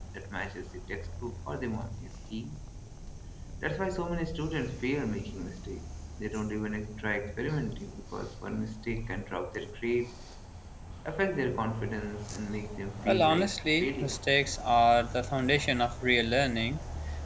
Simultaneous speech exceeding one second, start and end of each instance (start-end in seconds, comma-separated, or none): 13.1-14.2